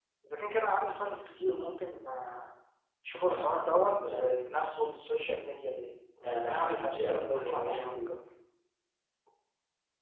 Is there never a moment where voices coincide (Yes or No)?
No